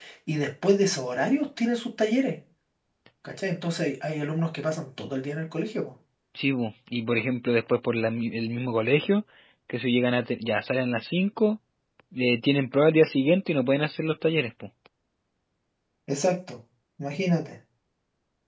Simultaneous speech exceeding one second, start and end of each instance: none

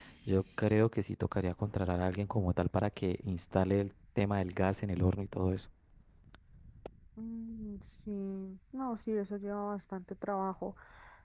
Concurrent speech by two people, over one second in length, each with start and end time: none

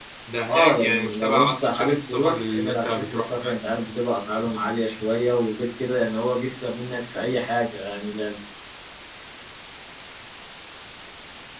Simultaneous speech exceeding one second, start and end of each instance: 0.5-3.3

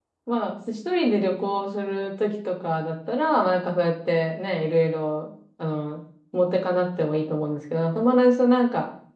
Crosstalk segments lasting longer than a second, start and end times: none

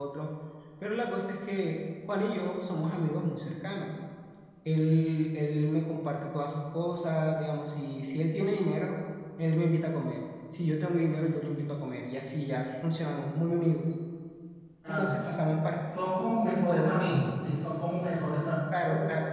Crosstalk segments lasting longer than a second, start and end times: none

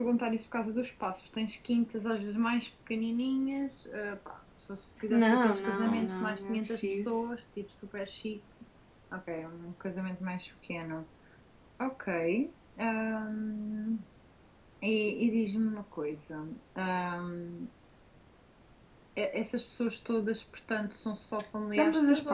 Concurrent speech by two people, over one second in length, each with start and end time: 5.1-7.2

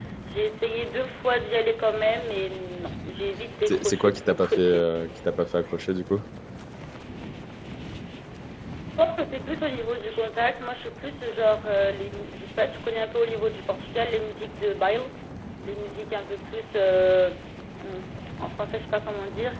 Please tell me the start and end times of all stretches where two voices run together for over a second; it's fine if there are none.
3.7-4.9

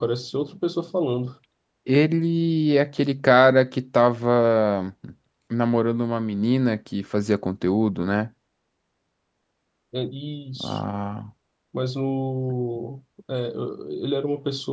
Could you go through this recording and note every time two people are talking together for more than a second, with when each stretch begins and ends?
none

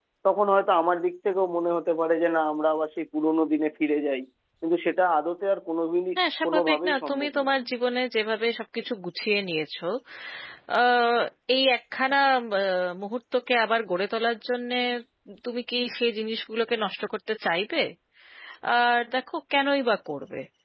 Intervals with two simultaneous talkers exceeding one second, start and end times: 6.2-7.5

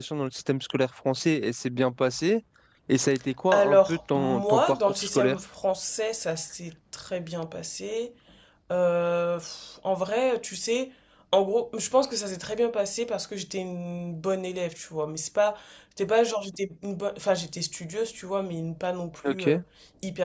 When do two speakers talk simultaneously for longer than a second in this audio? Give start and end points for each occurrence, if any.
3.5-5.4

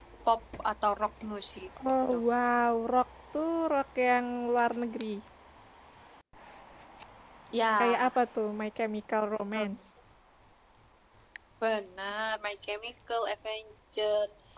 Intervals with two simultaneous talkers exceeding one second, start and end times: none

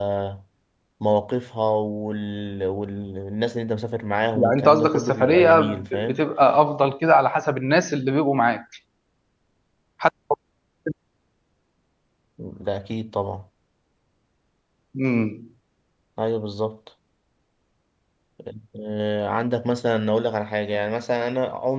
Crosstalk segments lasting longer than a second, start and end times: 4.3-6.2

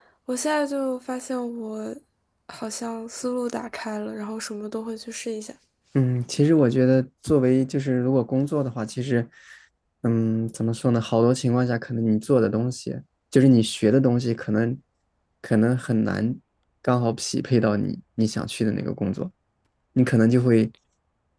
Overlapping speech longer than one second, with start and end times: none

